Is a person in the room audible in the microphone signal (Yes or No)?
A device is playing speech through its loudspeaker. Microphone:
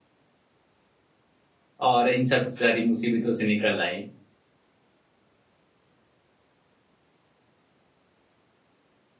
Yes